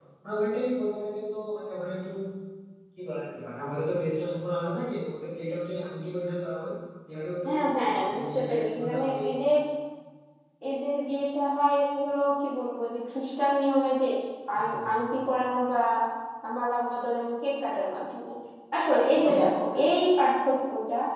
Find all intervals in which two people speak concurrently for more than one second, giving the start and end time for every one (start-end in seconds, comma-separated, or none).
7.5-9.1